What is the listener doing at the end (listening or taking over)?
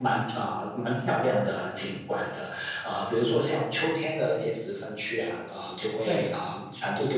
listening